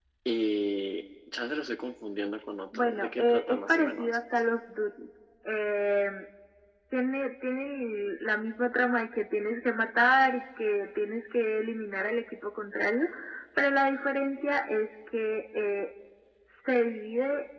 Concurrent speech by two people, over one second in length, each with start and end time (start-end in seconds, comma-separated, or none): 2.7-4.2